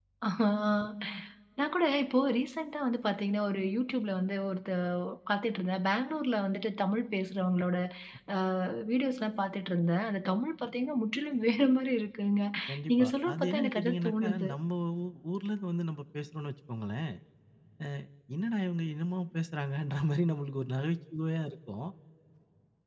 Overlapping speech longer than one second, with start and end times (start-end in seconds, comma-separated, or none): 12.9-14.5